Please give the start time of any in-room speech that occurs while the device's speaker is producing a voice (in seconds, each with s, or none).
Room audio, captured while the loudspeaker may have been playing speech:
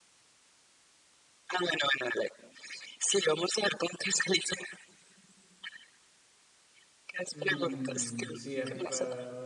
7.3 s